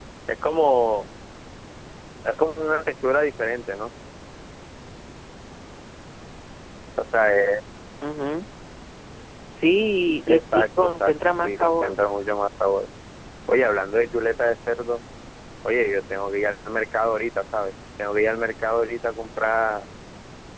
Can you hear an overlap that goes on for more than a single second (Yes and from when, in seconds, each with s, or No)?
Yes, from 10.3 s